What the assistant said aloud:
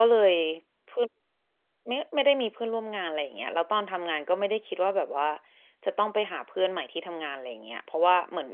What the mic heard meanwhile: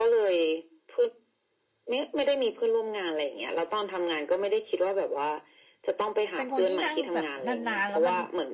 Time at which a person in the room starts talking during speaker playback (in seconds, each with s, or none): 6.3 s